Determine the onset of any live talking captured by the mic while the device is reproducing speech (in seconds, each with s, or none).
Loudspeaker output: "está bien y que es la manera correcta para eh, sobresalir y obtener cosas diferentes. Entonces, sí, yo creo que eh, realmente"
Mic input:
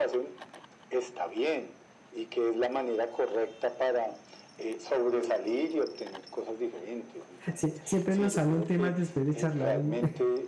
7.5 s